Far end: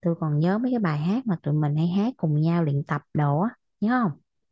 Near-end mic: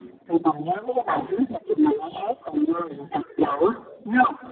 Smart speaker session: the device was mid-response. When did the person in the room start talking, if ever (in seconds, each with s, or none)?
none